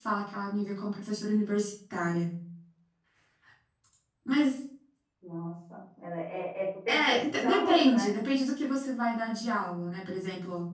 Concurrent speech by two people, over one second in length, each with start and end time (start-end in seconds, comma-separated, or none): 6.9-8.1